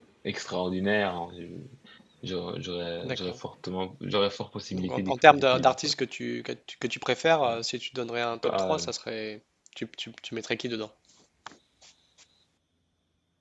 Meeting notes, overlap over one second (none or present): present